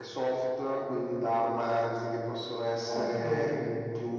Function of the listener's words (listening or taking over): listening